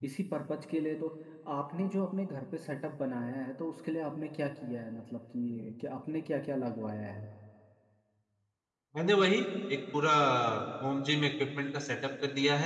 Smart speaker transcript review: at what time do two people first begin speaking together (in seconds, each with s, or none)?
none